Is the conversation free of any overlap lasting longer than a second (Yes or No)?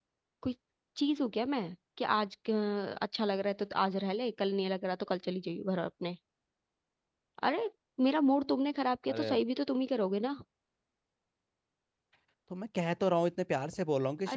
Yes